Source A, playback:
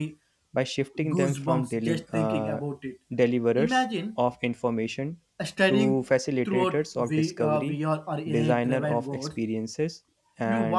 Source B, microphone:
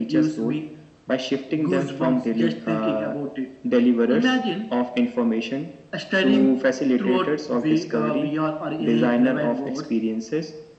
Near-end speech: none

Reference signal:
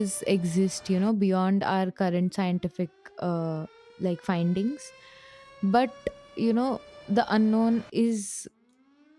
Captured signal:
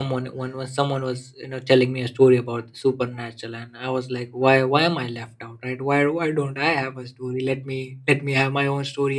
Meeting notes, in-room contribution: present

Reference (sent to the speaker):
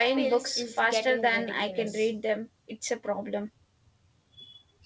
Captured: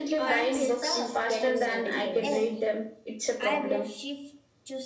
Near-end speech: present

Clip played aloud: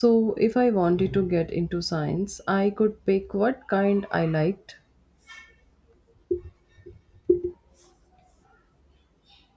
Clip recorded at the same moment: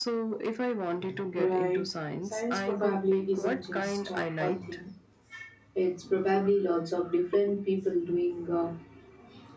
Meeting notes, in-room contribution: present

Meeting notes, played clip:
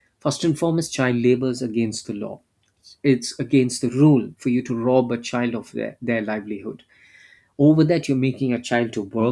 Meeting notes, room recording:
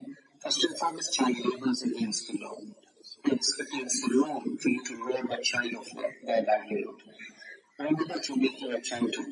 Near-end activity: none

